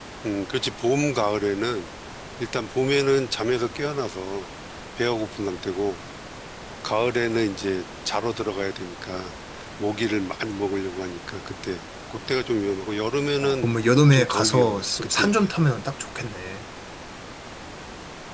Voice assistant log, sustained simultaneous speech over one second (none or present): present